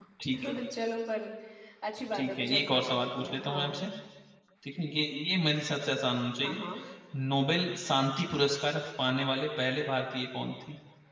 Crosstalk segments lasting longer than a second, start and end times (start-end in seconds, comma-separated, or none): 2.1-3.6